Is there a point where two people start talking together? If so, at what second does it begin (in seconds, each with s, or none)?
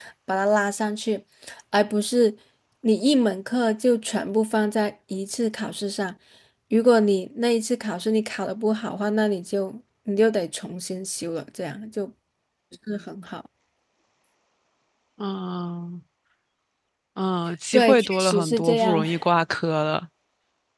17.7 s